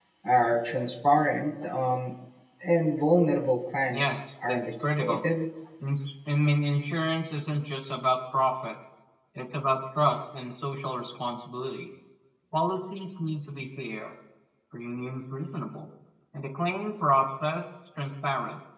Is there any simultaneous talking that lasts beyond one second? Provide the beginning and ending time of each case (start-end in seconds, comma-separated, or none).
3.9-5.2